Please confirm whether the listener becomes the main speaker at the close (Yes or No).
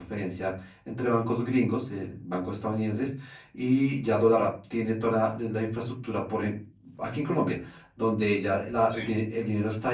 No